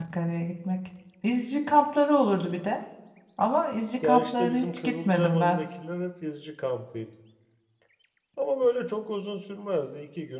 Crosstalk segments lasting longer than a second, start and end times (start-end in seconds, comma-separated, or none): 4.0-5.6